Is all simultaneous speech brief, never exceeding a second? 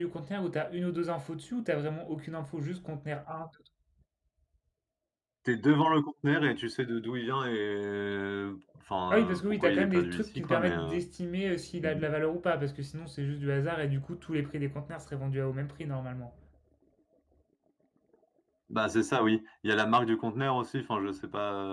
No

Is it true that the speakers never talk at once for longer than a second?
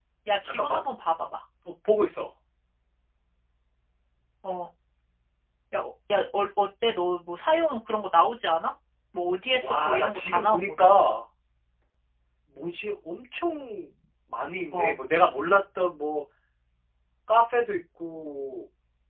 No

